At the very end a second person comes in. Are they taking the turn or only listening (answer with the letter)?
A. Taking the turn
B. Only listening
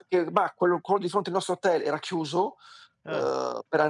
B